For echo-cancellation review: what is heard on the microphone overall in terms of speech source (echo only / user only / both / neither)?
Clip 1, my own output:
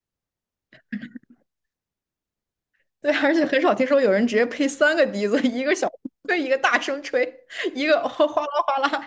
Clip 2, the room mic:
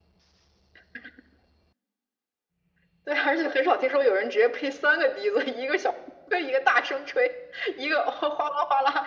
echo only